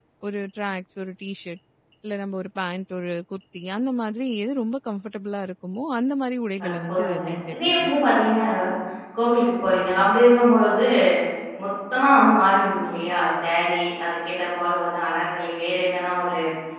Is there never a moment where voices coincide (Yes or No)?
No